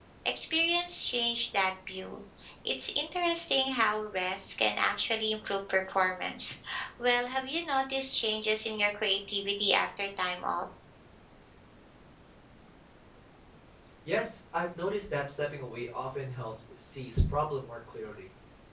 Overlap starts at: none

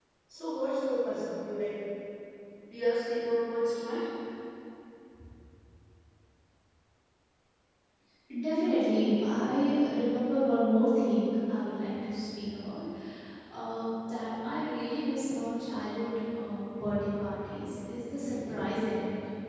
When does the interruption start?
none

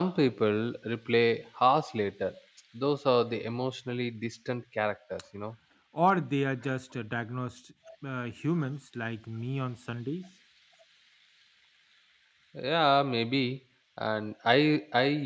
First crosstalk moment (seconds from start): none

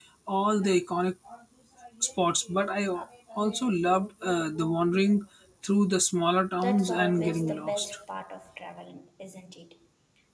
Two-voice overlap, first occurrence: 6.5 s

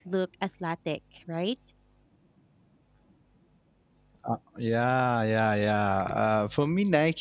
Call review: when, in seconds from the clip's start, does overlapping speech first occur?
none

